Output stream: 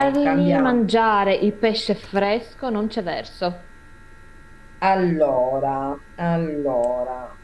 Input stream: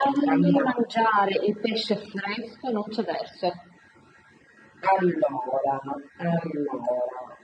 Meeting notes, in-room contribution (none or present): none